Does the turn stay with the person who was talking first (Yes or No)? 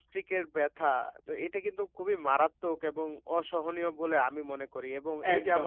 Yes